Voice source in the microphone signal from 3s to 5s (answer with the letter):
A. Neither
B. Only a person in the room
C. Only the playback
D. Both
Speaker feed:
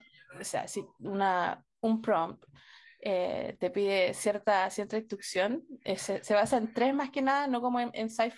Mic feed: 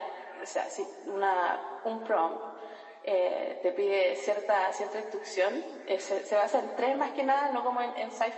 C